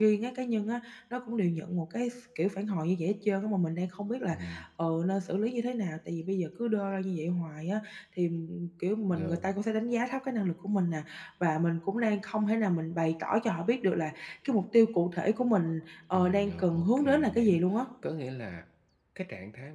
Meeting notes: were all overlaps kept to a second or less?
No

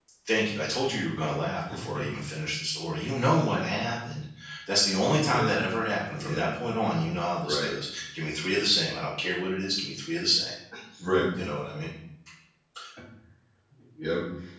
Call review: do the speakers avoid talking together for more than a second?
Yes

